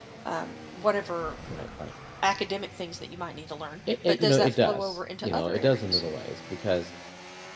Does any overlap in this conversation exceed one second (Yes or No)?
Yes